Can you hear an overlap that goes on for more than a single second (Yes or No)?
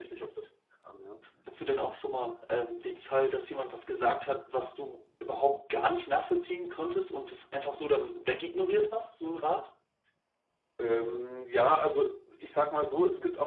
No